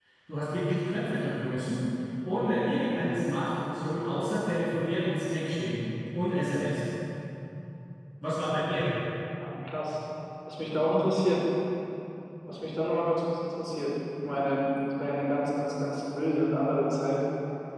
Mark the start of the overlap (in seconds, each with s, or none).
none